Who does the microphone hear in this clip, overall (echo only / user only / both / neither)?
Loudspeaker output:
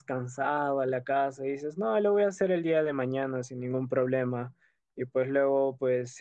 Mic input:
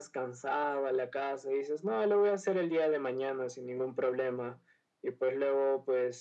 echo only